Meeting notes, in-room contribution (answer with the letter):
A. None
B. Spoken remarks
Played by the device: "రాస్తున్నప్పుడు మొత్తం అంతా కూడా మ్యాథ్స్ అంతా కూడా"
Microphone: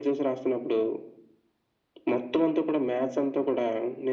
A